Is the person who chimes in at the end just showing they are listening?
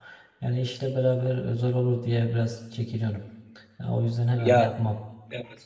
No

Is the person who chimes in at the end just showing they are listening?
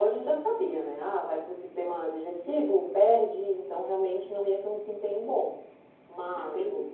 Yes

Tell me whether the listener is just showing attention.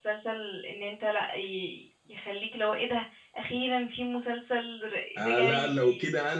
No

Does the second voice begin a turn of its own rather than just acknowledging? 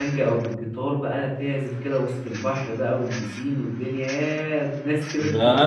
Yes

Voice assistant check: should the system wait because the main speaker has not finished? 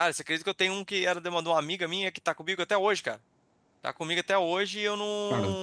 No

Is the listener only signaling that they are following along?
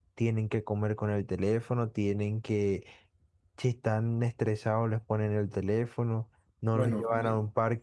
Yes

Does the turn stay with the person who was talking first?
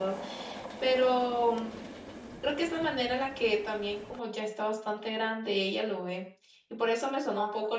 Yes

